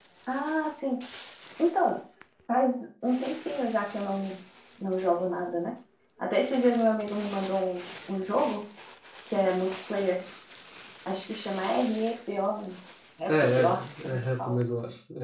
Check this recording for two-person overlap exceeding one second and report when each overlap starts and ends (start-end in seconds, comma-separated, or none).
13.3-14.6